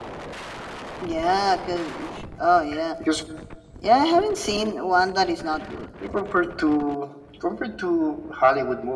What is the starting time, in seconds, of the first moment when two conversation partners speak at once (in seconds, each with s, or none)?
none